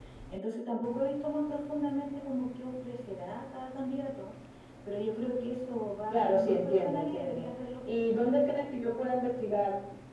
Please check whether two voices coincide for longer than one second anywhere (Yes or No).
Yes